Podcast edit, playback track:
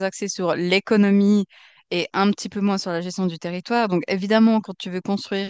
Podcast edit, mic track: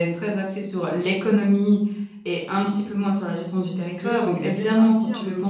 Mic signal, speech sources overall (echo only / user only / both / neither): both